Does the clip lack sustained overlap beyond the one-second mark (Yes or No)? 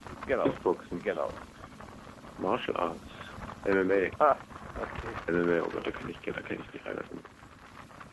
Yes